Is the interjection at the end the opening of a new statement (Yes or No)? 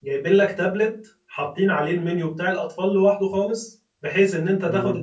No